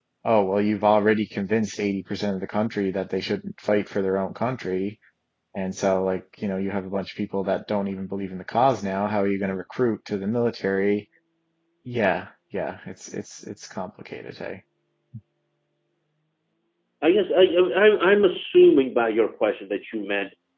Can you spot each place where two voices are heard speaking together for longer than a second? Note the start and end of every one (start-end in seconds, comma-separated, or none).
none